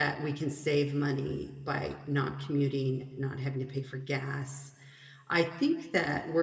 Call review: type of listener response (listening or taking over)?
listening